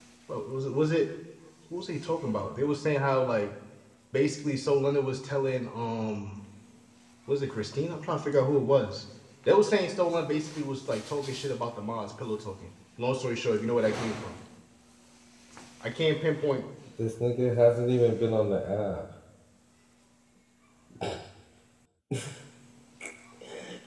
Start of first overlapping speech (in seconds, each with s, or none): none